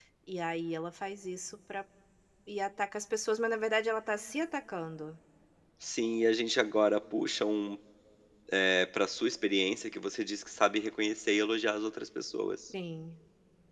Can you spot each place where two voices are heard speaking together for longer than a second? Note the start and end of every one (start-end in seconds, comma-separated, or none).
none